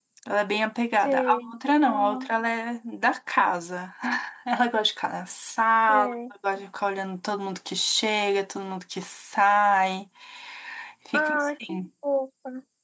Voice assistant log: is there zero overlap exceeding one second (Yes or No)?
No